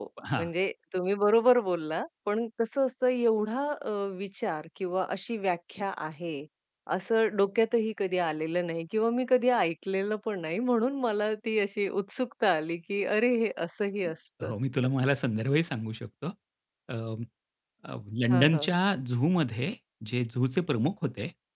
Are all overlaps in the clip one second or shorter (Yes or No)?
Yes